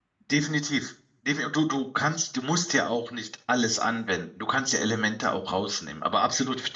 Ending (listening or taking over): listening